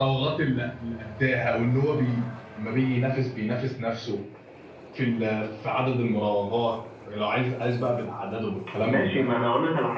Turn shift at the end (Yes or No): Yes